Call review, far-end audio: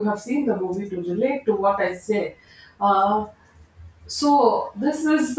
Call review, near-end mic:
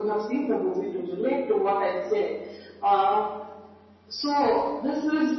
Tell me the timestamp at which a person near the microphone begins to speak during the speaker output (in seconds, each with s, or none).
none